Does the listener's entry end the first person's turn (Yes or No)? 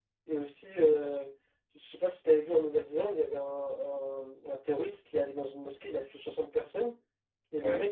No